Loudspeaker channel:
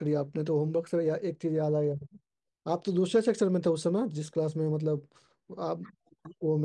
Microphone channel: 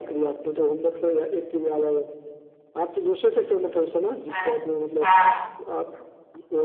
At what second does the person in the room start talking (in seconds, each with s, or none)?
4.3 s